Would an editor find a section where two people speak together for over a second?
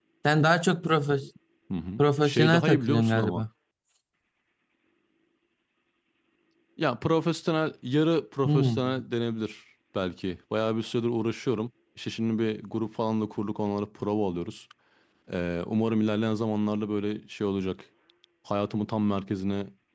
Yes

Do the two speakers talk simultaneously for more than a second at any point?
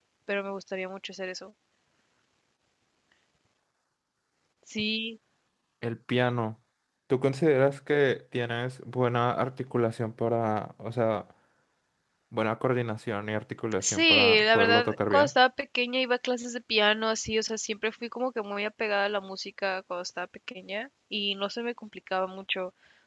Yes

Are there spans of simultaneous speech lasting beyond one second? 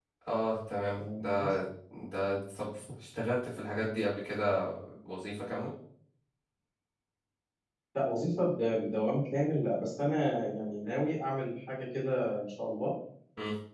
No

